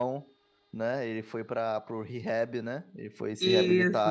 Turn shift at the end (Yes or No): Yes